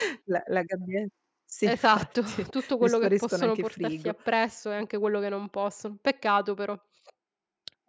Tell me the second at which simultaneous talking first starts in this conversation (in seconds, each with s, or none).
1.6 s